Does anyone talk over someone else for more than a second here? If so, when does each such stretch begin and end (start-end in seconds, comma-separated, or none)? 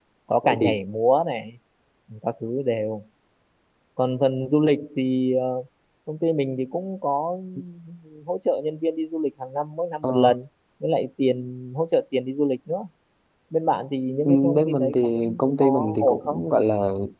14.2-16.4